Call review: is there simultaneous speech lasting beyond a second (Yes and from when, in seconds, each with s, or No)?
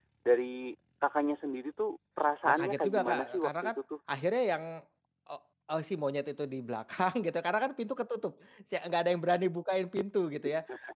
Yes, from 2.5 s